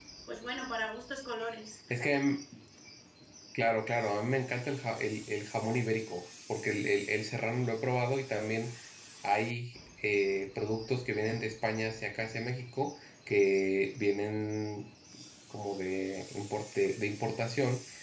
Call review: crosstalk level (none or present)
none